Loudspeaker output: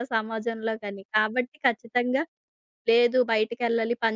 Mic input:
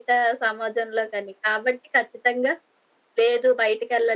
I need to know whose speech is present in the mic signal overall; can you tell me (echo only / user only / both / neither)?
echo only